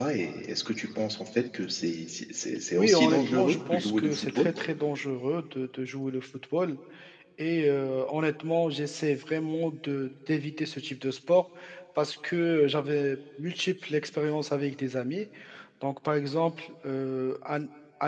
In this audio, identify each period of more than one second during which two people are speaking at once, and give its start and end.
2.8-4.5

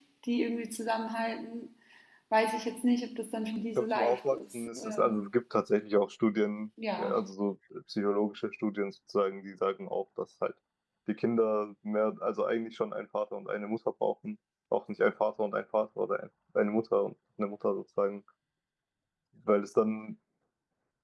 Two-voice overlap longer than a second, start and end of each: 3.8-5.3

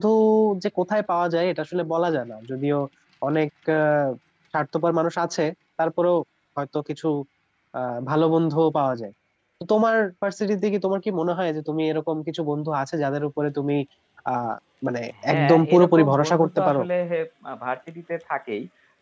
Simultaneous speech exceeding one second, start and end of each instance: 15.3-16.8

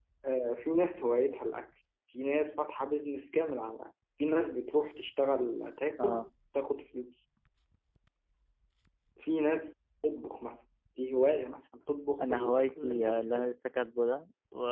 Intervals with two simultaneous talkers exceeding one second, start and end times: 12.2-13.5

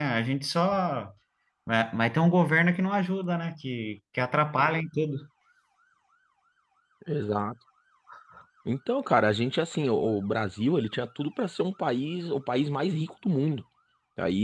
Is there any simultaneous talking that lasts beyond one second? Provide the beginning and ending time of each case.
none

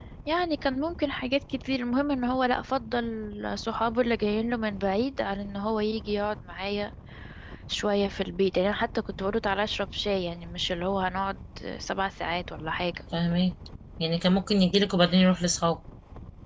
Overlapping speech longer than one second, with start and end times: none

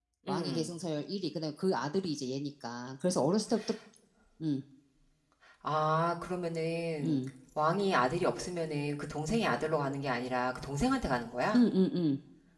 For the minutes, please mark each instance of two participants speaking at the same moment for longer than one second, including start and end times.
none

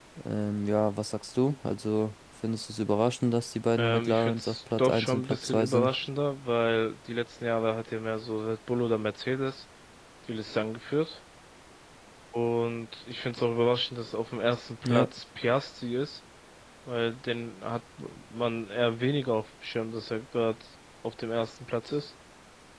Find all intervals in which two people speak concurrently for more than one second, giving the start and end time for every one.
3.8-5.9

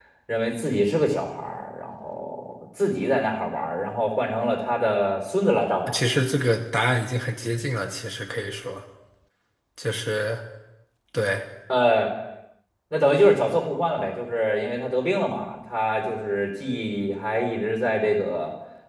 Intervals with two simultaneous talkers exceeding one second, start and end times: none

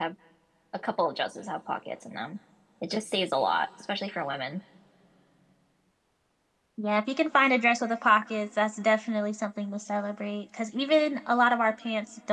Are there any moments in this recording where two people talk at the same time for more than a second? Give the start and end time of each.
none

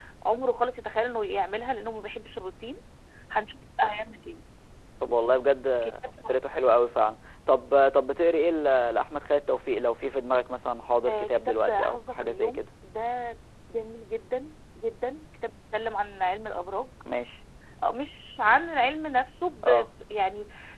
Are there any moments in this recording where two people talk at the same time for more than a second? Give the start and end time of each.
11.1-12.6

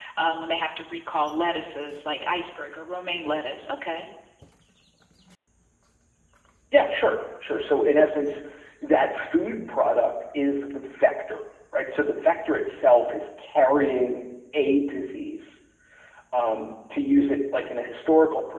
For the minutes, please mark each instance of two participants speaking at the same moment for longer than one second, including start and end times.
none

